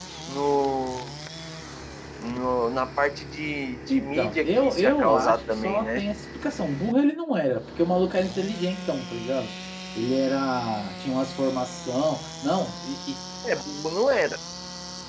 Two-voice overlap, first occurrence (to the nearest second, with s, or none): 4 s